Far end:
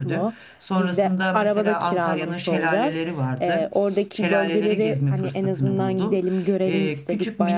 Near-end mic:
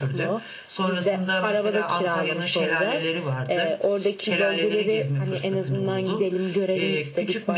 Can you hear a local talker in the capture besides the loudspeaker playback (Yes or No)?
No